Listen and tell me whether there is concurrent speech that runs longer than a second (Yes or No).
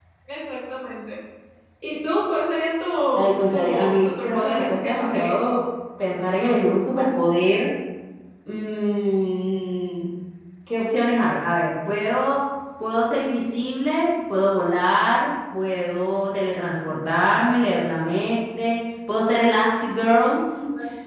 Yes